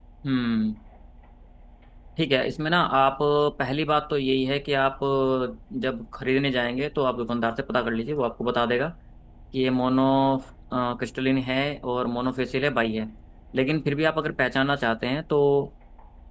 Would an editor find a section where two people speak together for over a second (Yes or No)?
No